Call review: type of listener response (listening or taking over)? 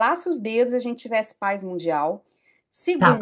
taking over